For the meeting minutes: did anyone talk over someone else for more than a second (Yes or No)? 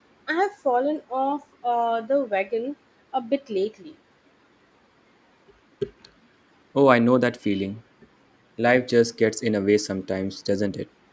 No